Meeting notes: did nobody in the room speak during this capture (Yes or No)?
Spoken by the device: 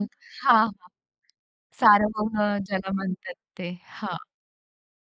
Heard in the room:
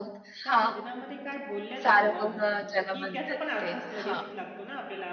No